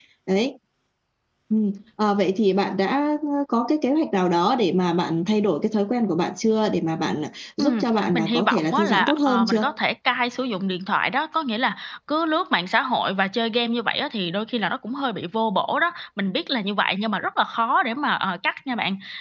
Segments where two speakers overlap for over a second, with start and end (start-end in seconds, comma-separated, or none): 7.6-9.6